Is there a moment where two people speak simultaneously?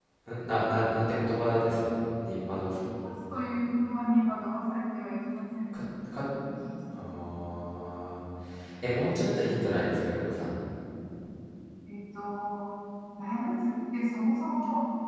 No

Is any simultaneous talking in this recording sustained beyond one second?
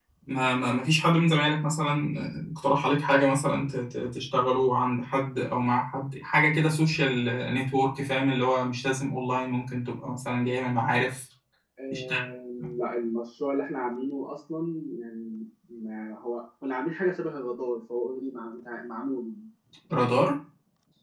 No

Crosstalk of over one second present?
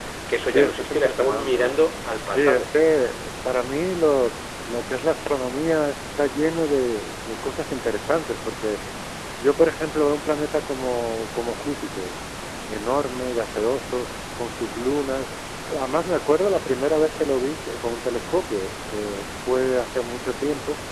Yes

